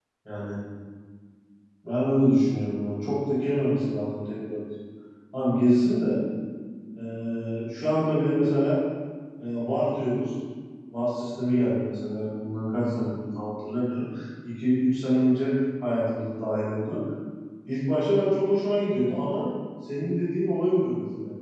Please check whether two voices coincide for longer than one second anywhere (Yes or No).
No